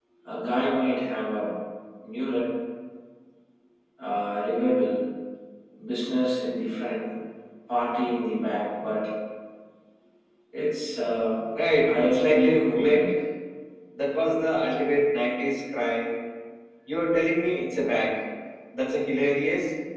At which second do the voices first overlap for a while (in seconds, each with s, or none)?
11.9 s